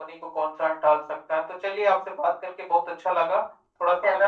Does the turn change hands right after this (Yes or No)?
No